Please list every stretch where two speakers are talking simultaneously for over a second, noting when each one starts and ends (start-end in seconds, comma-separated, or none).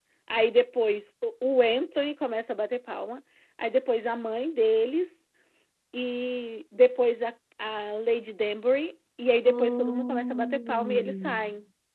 9.5-11.4